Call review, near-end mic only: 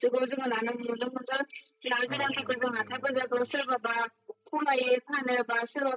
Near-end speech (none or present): present